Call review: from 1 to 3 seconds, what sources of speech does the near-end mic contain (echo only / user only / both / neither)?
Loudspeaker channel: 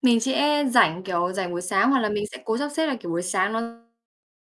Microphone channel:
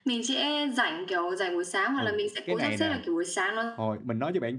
both